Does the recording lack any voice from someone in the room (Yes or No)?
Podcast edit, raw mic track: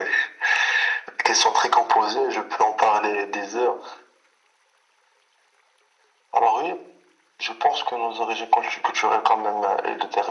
Yes